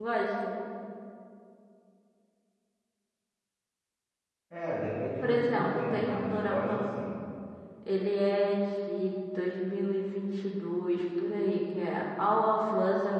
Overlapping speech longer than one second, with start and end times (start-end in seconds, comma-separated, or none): 5.2-6.8